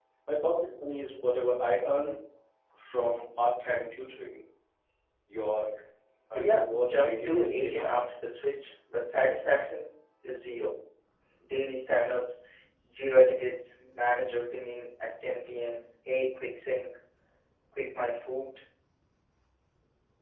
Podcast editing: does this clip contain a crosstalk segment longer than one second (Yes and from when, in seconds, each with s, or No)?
Yes, from 6.3 s